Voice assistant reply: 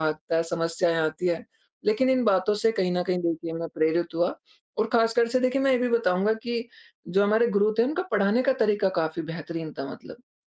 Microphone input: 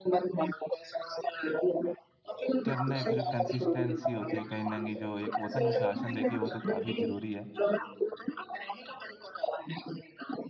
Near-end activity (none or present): present